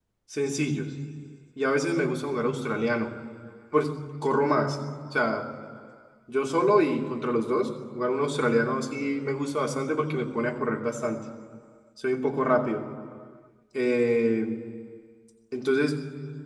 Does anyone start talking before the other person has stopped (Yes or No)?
No